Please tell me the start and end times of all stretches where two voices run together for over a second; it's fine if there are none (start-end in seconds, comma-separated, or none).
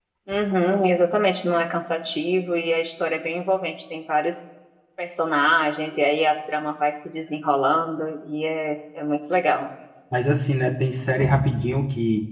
none